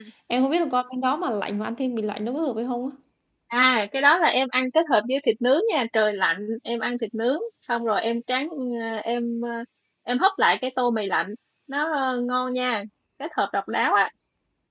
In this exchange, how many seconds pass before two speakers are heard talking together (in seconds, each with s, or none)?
none